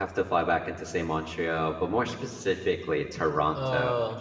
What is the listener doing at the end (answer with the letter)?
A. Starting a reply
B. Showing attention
B